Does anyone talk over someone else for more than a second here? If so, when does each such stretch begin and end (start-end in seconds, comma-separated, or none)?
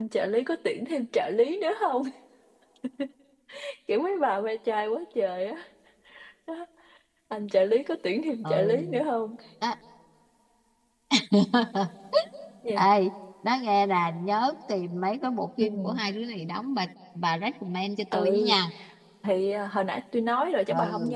none